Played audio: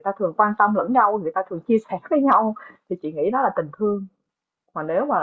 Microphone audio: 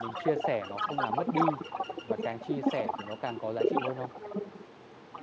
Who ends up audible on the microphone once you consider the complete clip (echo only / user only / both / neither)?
both